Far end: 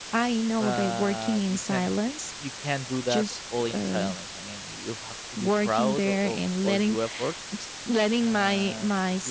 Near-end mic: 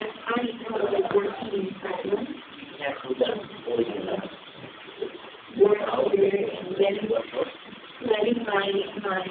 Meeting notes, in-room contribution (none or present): none